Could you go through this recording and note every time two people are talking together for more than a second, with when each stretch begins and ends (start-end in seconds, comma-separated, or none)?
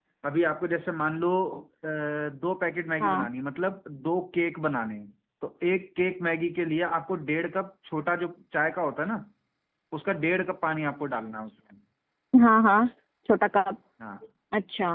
none